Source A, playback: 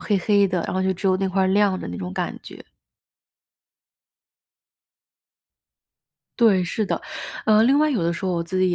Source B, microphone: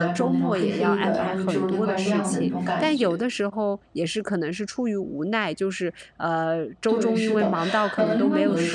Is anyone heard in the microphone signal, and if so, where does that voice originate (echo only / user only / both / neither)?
both